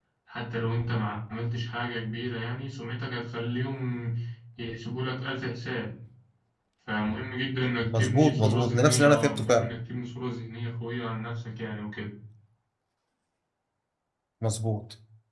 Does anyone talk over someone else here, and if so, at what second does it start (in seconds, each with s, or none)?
7.8 s